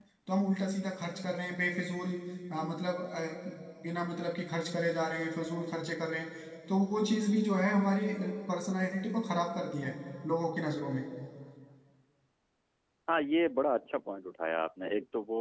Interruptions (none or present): none